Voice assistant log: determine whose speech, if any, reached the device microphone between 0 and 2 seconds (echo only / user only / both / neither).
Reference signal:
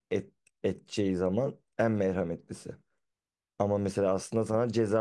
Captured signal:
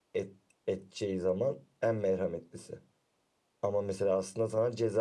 echo only